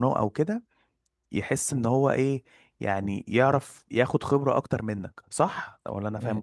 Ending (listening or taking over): taking over